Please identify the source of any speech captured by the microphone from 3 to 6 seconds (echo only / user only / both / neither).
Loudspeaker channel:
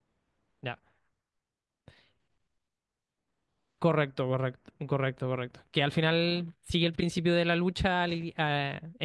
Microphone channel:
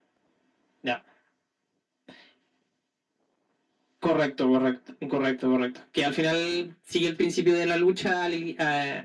echo only